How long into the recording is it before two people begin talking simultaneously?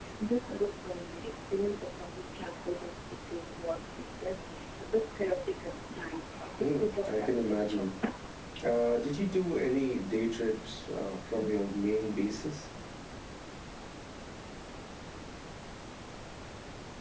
6.6 s

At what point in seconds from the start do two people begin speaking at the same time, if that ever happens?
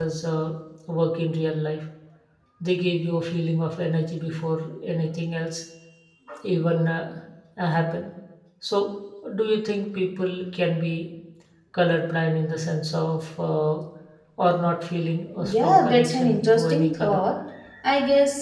15.4 s

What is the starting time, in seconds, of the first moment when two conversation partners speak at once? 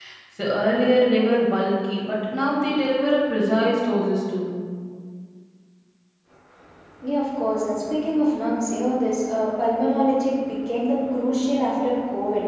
none

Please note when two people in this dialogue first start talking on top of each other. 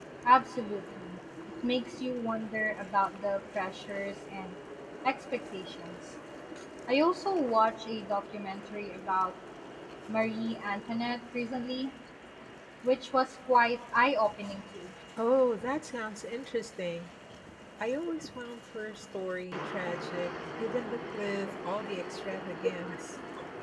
none

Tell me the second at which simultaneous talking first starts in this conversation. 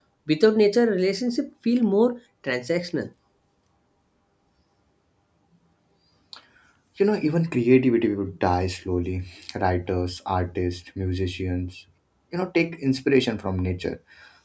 none

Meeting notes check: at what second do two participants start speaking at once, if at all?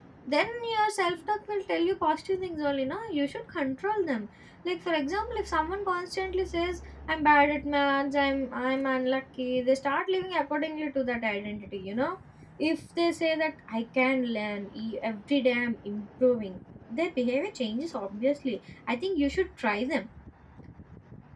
none

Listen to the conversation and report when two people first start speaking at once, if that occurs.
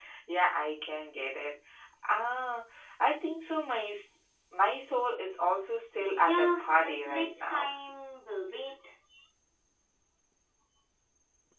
6.0 s

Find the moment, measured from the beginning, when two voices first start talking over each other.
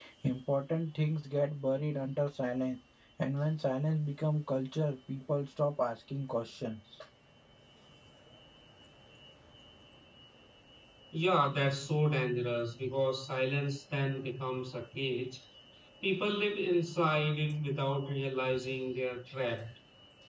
none

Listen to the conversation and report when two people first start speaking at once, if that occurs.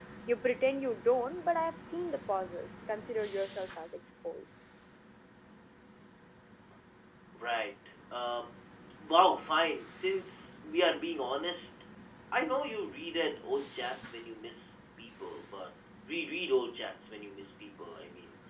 none

